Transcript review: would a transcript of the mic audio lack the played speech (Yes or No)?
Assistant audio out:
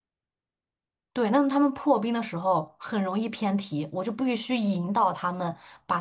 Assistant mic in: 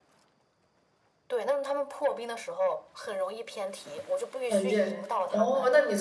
No